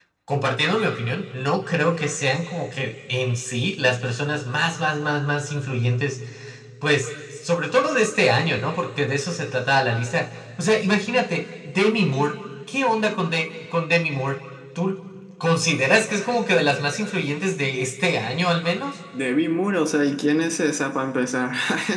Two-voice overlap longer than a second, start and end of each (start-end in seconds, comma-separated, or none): none